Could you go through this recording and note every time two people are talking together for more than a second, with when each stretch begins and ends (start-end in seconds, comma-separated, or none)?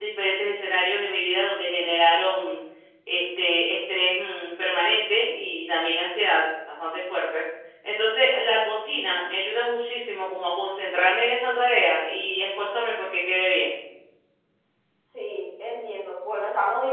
none